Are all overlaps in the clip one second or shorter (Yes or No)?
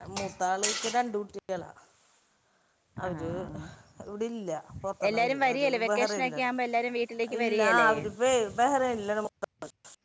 No